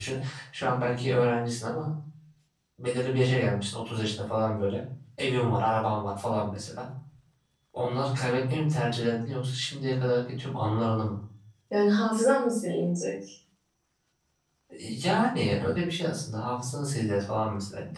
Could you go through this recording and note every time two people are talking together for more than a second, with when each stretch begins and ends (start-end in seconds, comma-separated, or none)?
none